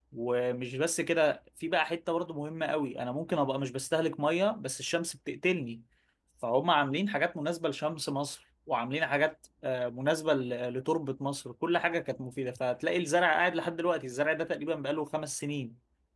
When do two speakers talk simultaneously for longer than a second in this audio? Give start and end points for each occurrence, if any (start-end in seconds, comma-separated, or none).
none